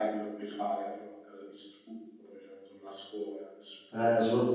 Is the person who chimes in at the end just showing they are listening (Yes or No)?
No